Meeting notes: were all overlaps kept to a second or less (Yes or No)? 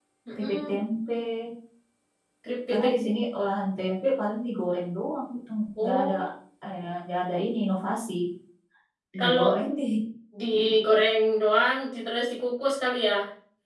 Yes